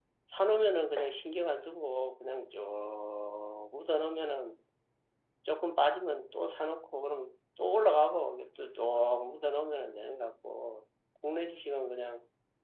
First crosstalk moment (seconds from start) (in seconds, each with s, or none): none